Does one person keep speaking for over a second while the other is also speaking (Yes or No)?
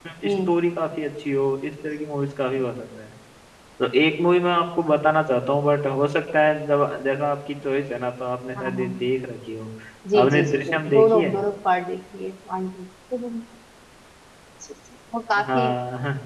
Yes